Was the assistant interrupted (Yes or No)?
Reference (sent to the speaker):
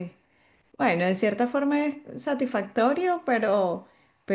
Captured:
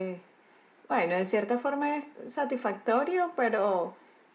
No